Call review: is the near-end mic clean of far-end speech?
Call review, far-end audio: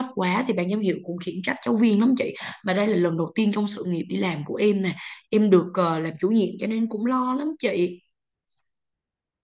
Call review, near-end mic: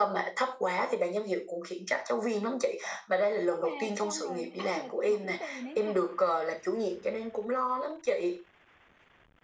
No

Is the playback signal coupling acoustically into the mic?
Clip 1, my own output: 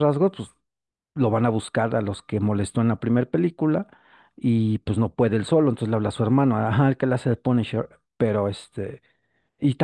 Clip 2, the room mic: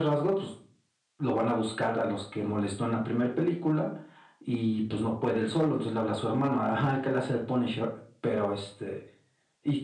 Yes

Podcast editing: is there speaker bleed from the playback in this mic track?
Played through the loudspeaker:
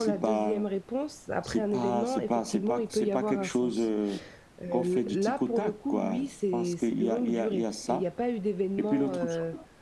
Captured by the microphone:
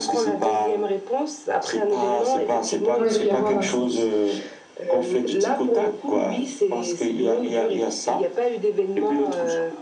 Yes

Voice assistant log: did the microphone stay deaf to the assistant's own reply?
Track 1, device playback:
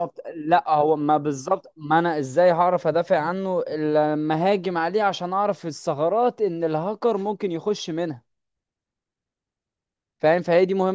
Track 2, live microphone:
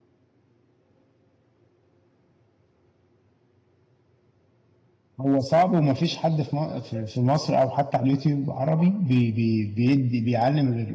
Yes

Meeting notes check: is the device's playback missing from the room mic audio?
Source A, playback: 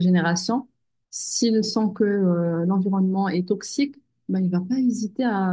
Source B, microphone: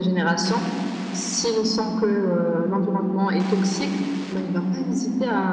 No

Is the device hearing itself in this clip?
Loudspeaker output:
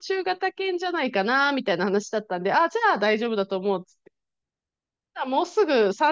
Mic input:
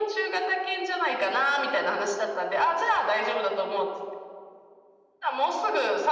Yes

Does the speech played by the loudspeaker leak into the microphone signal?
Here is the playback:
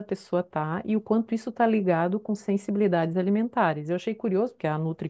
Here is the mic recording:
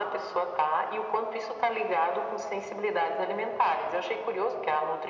Yes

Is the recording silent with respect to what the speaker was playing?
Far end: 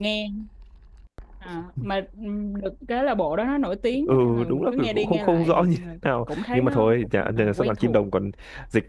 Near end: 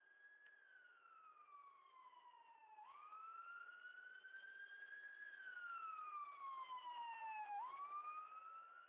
Yes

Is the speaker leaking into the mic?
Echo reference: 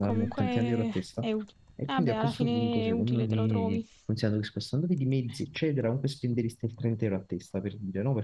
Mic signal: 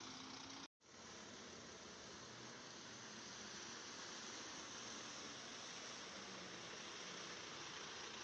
No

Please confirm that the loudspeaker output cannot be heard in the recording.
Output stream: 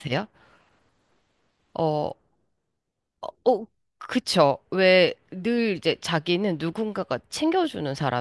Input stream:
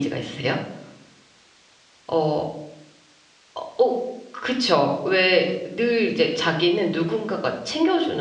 No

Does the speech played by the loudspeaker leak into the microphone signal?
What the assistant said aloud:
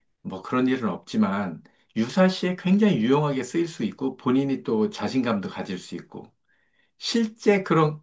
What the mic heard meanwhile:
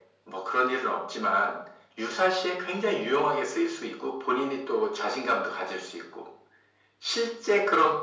Yes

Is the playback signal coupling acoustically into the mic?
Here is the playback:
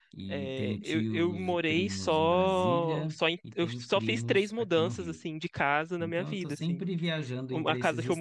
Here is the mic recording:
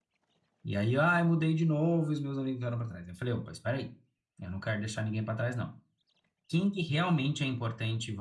No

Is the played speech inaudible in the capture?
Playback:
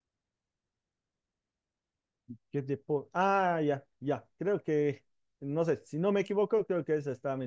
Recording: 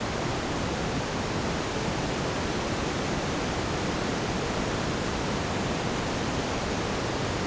Yes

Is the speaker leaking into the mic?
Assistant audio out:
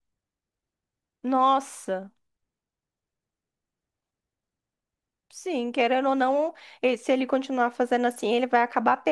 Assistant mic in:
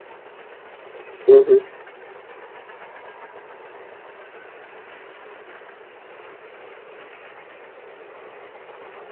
No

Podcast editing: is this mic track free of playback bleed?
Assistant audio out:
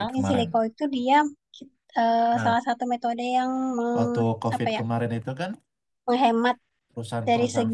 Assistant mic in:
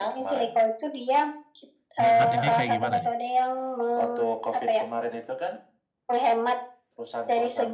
No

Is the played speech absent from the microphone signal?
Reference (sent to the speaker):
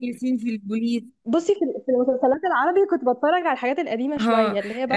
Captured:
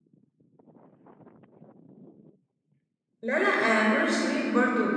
Yes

